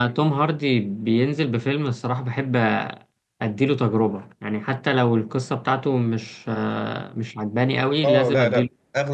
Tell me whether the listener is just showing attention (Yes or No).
No